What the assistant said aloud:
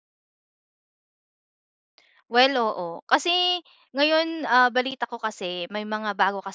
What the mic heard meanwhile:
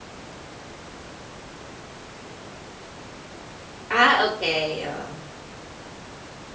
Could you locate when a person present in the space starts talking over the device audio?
3.9 s

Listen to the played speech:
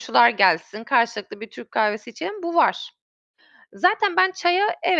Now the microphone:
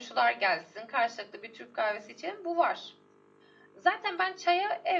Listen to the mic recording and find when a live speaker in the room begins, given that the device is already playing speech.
none

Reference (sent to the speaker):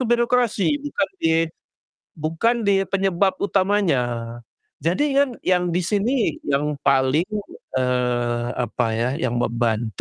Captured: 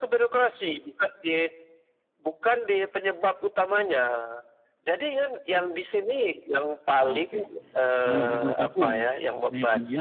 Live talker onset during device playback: 7.0 s

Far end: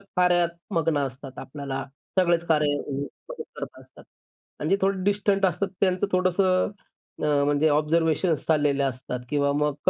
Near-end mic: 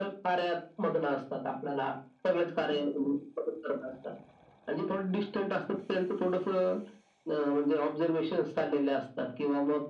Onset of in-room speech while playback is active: none

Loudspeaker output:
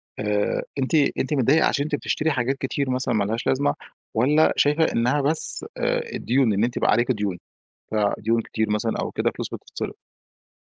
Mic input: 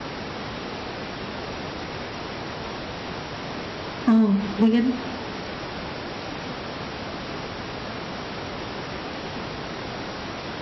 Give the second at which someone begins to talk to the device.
4.1 s

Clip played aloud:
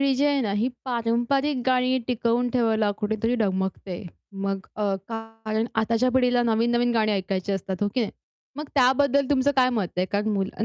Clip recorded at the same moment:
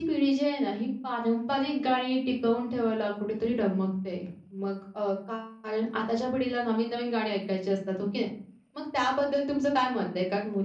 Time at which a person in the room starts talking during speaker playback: none

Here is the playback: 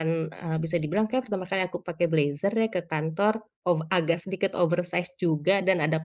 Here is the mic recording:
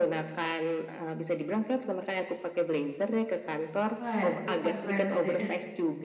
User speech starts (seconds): 4.0 s

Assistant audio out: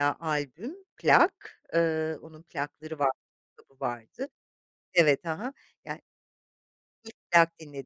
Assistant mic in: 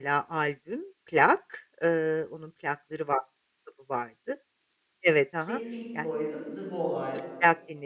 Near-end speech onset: 5.5 s

